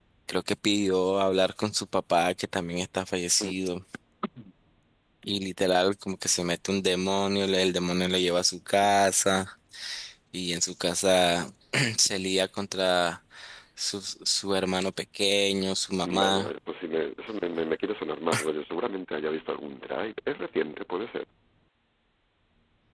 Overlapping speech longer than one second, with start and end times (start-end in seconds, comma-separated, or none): none